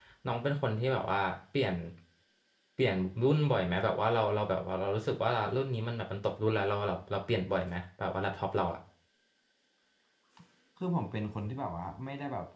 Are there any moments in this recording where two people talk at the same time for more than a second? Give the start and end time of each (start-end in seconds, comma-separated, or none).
none